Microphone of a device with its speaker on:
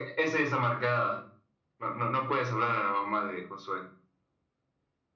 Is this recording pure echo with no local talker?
Yes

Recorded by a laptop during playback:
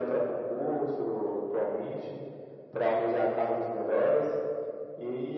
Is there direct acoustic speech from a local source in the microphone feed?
No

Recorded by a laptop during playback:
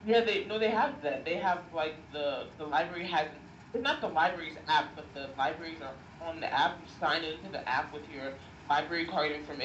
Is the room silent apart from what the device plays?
Yes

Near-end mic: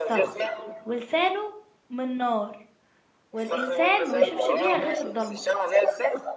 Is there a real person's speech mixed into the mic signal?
Yes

